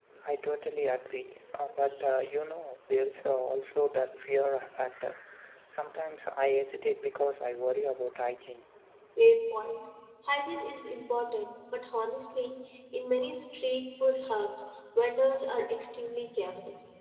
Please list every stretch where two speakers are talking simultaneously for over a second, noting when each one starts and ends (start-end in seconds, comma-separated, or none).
none